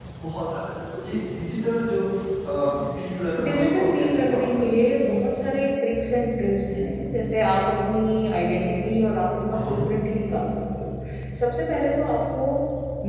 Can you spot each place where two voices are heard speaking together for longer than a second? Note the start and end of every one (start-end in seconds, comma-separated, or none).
3.5-4.8